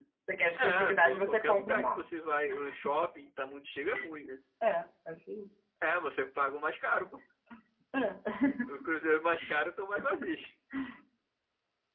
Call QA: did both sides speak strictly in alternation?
No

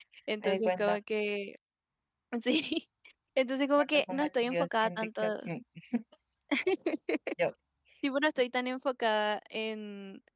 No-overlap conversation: No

